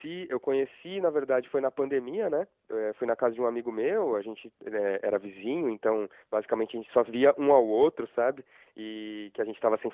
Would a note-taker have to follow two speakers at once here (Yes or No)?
No